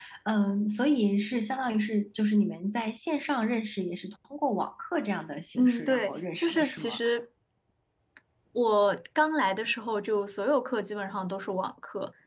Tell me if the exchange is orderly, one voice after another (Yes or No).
No